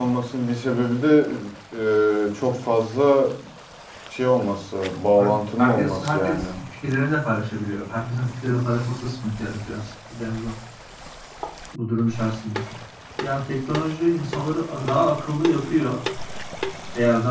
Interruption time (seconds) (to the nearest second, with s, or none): 5 s